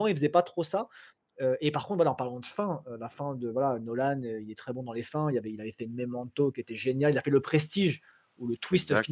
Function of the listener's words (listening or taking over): listening